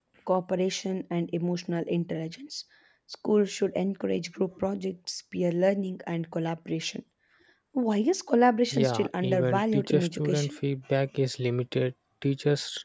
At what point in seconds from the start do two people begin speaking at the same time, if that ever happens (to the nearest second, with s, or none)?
9 s